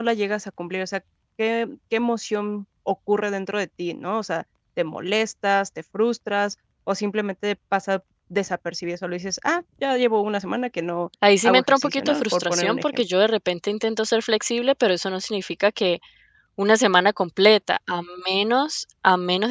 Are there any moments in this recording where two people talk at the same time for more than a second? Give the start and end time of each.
11.4-13.0

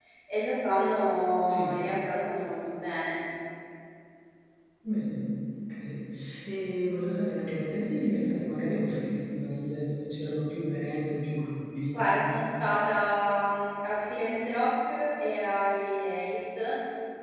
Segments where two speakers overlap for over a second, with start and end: none

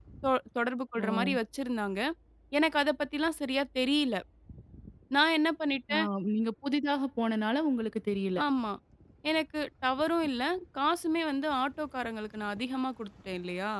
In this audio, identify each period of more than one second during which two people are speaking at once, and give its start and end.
none

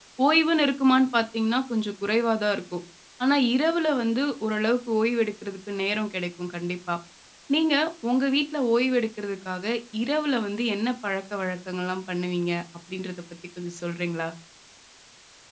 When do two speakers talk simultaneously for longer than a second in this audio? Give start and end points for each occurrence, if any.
none

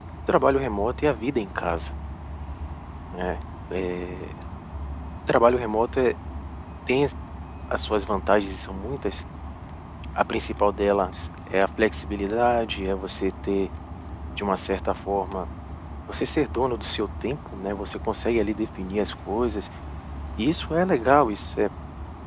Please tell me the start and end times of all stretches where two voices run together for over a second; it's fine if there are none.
none

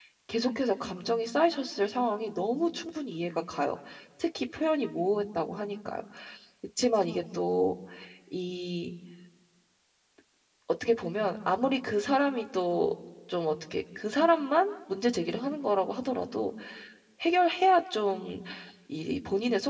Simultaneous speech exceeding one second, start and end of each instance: none

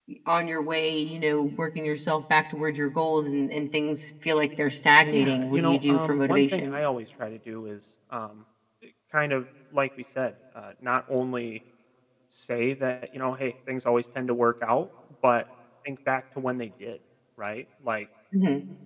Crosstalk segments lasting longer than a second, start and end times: 5.1-6.8

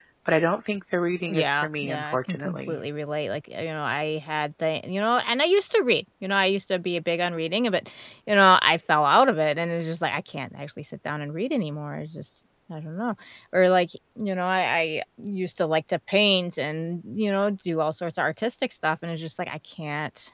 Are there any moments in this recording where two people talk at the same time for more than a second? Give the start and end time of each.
1.3-2.8

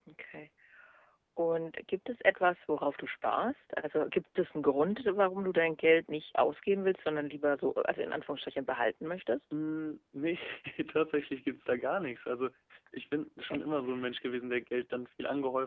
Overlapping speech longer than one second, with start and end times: none

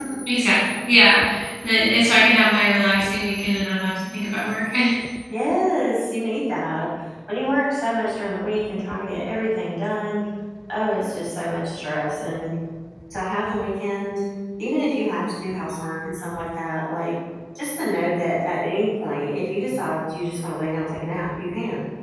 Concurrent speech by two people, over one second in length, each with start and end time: none

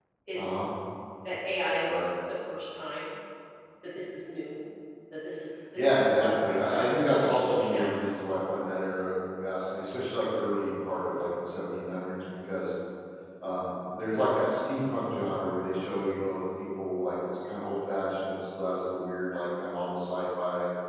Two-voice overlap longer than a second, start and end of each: 5.8-8.0

